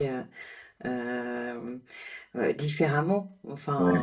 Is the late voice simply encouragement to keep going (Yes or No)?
Yes